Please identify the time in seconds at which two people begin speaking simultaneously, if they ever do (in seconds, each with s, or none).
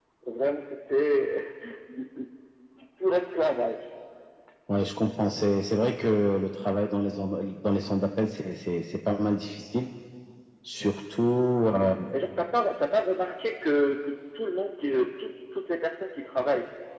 none